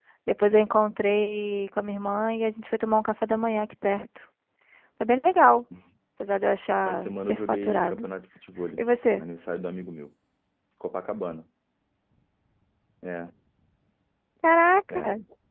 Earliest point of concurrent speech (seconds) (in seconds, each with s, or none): 6.8 s